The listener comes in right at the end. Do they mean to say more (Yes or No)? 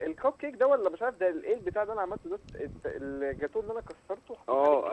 Yes